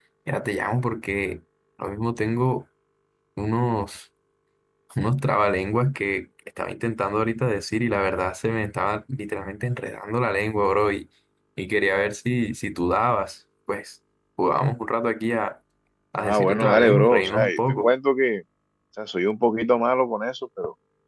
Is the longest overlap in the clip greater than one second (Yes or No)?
Yes